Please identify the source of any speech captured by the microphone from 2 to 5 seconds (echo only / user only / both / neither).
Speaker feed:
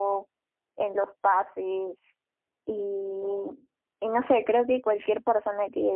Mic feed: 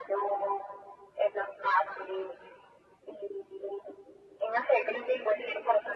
echo only